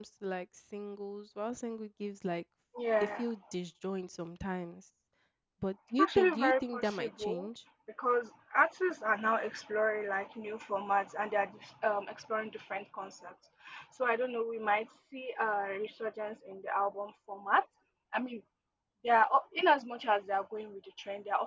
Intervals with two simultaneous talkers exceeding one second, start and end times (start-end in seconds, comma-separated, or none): 6.0-7.5